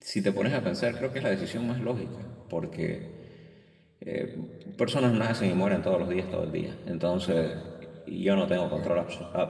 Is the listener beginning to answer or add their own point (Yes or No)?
No